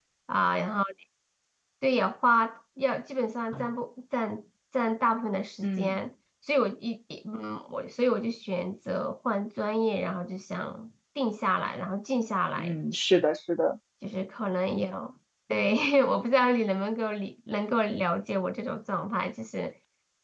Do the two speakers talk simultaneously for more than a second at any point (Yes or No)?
No